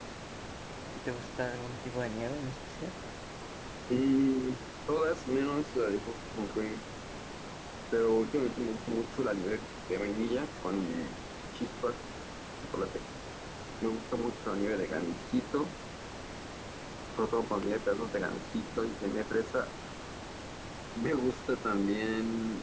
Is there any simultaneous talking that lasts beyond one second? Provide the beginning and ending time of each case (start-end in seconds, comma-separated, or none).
none